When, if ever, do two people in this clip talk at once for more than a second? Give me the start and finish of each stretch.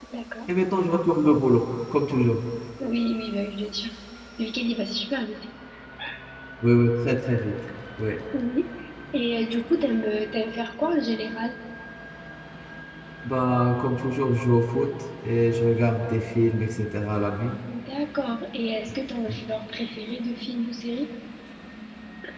none

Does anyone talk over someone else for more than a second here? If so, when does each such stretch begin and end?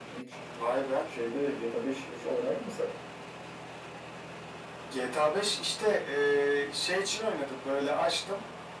none

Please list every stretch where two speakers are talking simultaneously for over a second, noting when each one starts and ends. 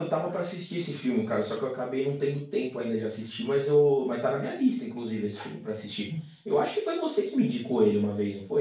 none

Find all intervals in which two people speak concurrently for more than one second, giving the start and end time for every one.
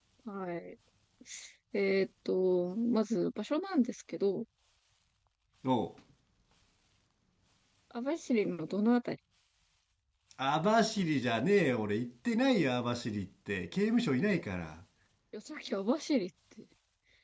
none

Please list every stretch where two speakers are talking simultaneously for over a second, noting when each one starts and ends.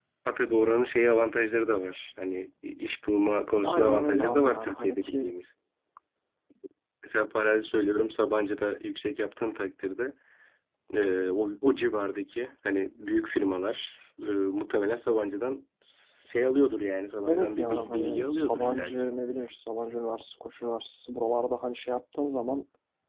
3.6-5.3, 17.3-19.1

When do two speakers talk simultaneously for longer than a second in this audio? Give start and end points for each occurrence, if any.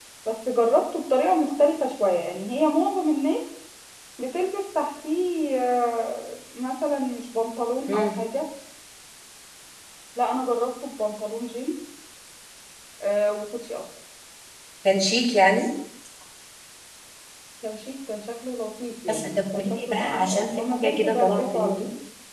19.1-21.7

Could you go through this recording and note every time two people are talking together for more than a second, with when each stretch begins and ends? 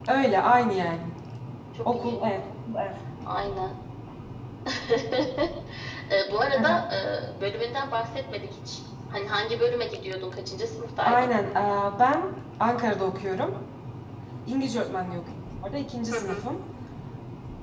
none

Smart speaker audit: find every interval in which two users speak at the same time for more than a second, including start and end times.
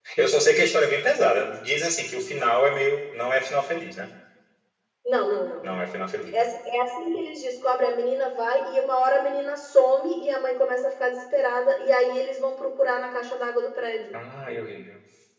none

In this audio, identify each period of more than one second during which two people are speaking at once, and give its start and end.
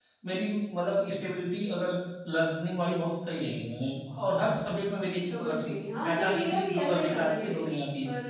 6.1-7.6

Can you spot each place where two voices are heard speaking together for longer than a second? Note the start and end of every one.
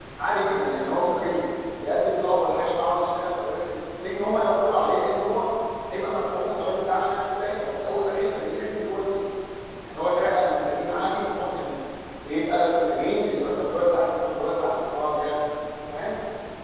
none

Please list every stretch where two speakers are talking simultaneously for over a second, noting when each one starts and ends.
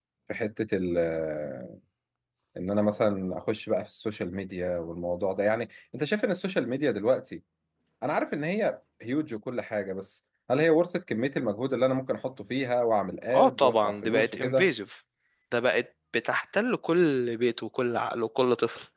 13.3-14.7

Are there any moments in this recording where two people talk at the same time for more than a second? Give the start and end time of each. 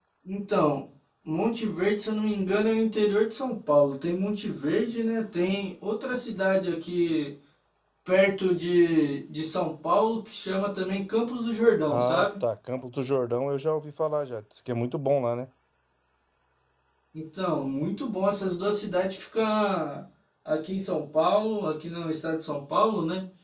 none

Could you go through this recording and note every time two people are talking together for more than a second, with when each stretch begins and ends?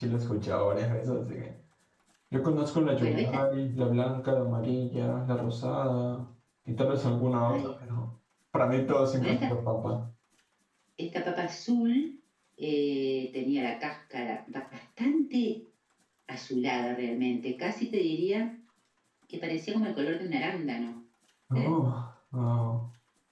none

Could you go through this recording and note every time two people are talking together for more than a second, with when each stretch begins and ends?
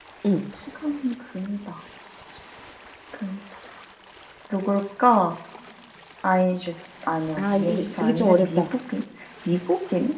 7.4-8.6

